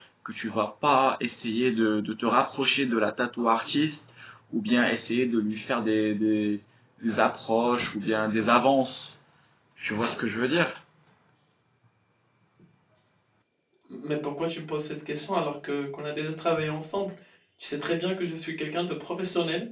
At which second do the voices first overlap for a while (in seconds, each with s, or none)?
none